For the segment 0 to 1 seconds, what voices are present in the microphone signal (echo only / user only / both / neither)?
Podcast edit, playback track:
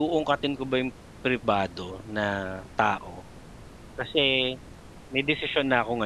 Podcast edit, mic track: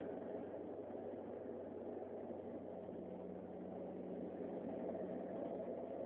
neither